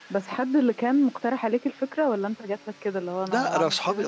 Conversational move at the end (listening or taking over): taking over